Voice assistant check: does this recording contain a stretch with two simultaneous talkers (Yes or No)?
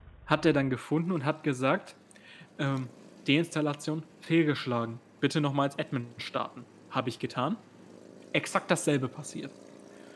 No